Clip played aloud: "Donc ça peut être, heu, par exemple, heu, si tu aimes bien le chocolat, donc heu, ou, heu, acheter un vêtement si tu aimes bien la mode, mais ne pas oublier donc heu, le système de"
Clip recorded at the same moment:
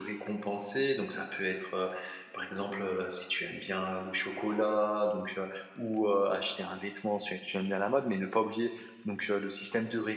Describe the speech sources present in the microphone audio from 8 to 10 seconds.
echo only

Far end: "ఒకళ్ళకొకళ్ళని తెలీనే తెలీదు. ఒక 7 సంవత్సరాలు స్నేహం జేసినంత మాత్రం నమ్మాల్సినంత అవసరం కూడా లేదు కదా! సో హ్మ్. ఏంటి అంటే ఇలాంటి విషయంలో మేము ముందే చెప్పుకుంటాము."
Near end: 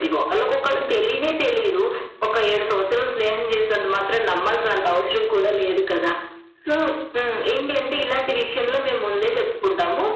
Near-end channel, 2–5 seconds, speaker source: echo only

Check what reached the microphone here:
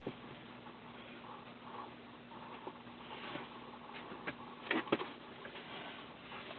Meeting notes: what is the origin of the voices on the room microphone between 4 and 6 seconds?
neither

